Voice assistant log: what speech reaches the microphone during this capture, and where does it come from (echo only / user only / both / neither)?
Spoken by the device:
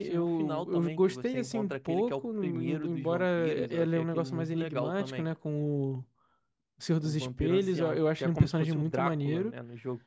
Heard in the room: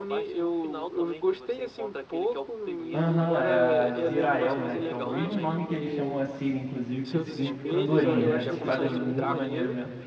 both